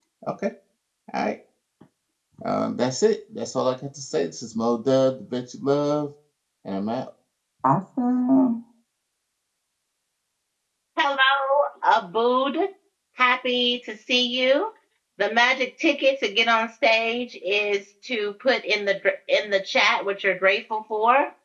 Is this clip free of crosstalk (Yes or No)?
Yes